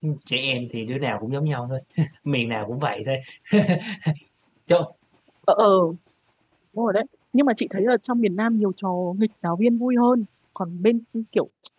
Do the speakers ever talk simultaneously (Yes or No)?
No